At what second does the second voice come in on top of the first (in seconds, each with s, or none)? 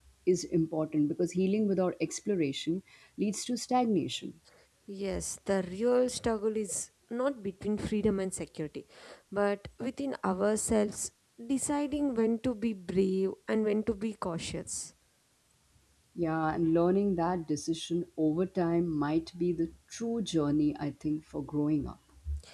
none